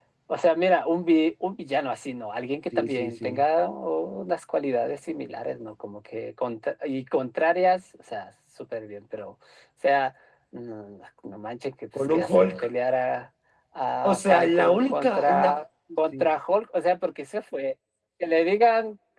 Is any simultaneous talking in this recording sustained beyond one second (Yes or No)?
Yes